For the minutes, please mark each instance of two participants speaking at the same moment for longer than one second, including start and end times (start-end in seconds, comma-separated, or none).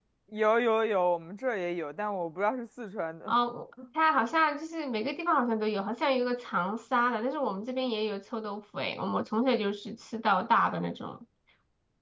none